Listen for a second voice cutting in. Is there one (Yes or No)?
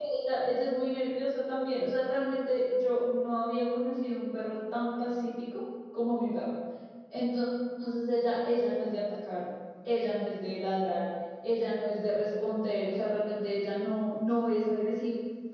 No